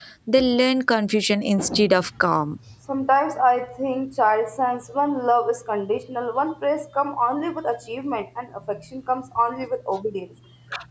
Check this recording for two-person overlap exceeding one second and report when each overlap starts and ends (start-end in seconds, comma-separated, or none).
none